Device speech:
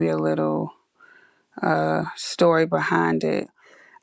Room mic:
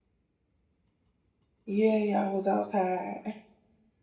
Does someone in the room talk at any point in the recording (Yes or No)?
Yes